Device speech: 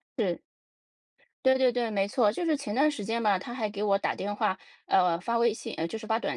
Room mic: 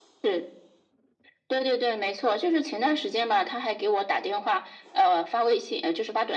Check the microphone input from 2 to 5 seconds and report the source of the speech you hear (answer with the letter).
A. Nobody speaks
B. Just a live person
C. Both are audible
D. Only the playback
D